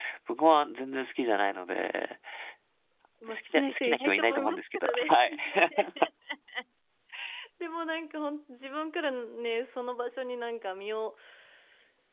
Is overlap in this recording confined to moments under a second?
No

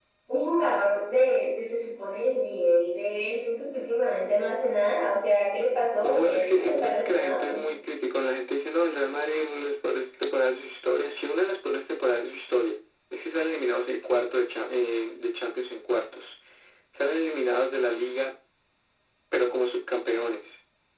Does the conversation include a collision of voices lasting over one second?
Yes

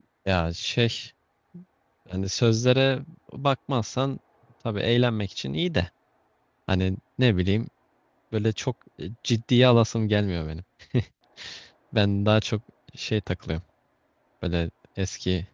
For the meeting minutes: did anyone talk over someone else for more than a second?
No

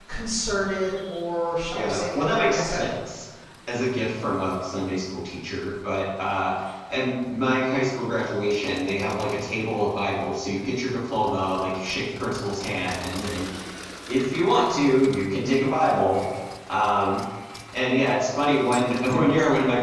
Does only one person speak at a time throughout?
No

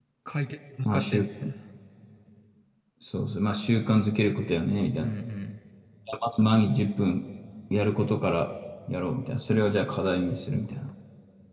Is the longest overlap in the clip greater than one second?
No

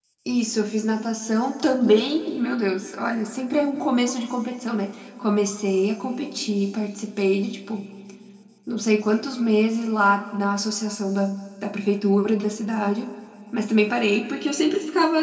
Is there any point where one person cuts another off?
No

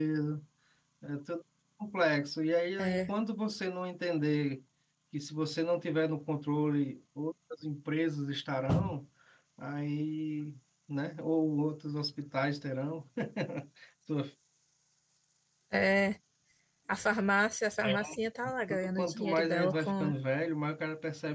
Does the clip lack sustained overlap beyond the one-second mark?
No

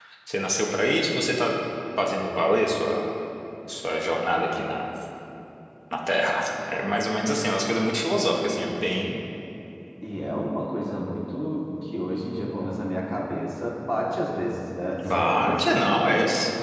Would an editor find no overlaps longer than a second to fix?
No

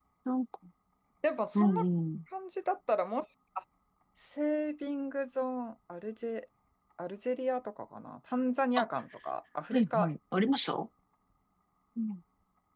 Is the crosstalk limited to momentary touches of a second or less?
Yes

